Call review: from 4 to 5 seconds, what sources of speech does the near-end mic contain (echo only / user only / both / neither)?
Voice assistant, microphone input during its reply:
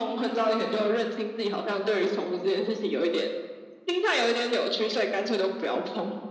echo only